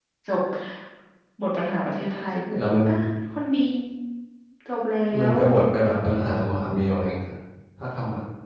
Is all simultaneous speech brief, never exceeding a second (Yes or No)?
Yes